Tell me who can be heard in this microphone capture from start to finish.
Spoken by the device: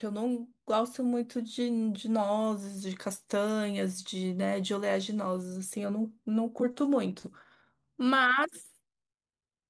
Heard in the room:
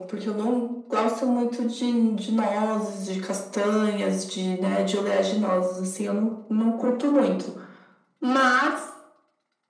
echo only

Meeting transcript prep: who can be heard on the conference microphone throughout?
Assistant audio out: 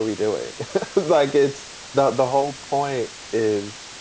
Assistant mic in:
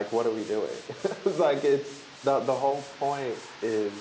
echo only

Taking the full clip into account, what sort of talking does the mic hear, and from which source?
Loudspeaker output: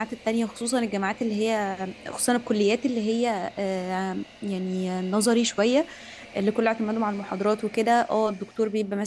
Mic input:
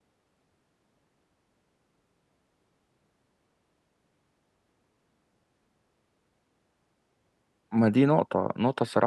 user only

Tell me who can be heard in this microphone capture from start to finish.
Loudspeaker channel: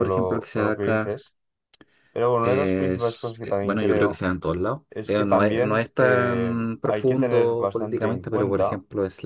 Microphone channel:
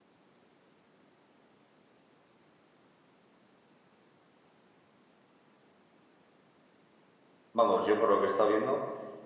user only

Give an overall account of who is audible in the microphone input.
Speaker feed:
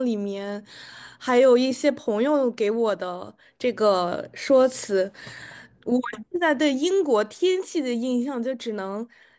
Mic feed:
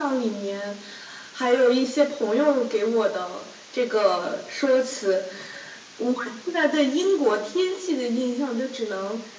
echo only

